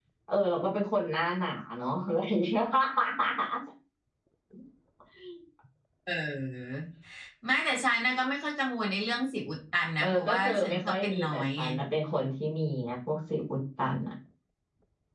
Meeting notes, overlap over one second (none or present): present